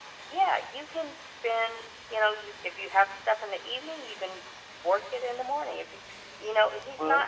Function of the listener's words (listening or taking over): listening